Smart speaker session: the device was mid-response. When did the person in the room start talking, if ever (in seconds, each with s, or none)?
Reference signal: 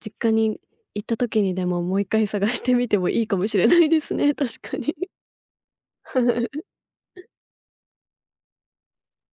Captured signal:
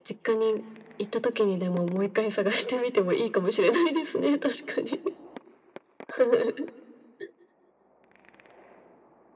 none